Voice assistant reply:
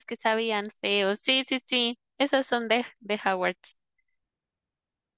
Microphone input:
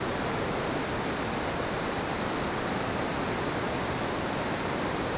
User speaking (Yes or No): No